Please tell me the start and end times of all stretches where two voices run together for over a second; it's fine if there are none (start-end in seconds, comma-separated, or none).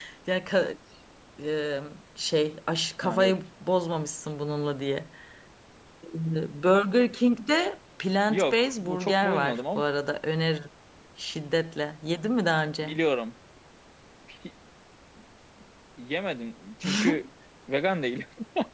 8.3-9.8